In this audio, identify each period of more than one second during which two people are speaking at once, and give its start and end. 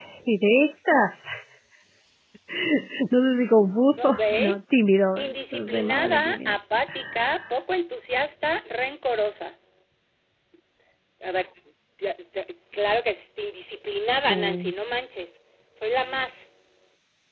5.2-6.5

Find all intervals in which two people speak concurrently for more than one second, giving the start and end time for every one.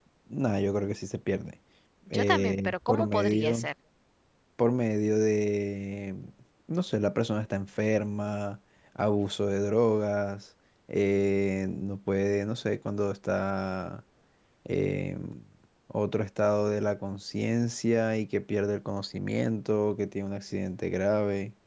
2.1-3.7

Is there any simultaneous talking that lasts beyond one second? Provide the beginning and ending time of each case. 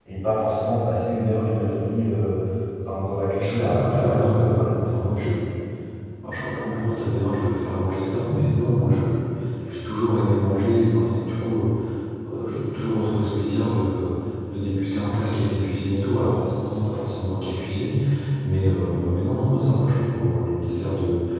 3.4-4.8

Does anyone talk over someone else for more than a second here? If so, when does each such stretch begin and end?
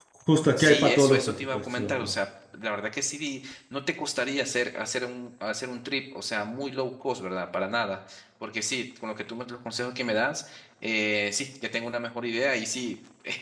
0.6-2.1

